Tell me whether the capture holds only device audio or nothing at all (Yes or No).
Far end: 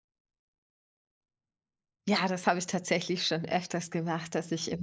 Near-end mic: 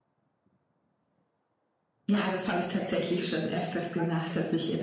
No